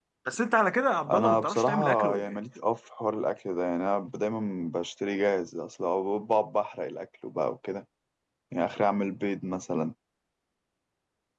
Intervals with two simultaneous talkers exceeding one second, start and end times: 1.1-2.4

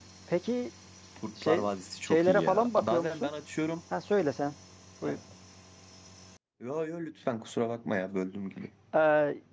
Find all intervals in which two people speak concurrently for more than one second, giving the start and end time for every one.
2.0-3.3

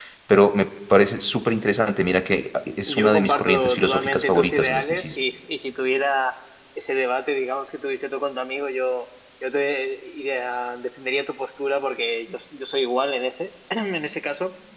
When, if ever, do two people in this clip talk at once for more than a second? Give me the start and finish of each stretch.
2.9-5.2

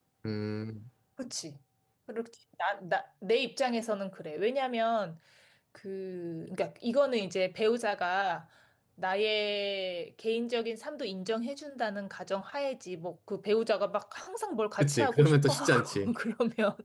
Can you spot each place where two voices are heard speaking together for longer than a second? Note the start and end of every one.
14.8-16.1

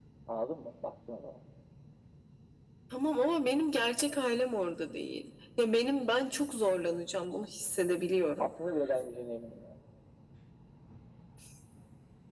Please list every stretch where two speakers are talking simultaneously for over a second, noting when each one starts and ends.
none

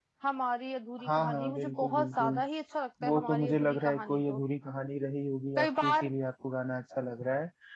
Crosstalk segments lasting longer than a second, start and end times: 1.1-2.3, 3.0-4.4

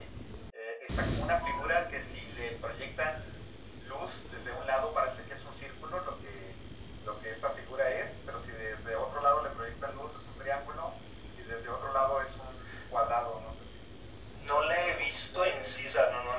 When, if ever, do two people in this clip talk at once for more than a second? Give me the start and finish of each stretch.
14.5-15.8

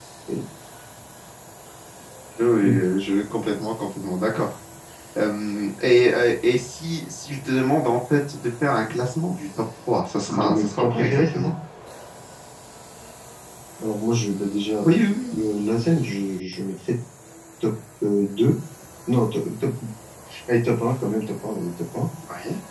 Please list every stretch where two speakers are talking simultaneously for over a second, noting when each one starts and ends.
10.3-11.5

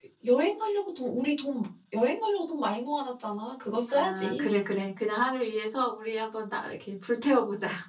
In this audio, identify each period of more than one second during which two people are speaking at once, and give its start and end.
none

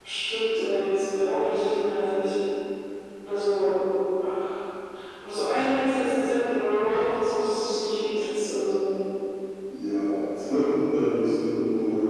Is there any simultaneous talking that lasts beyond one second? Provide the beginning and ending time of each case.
none

